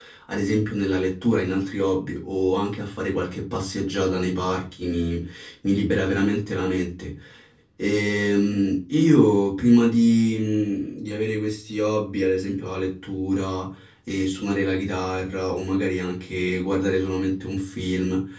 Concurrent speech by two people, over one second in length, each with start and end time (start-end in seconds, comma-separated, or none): none